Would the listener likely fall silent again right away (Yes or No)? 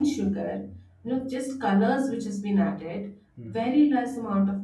Yes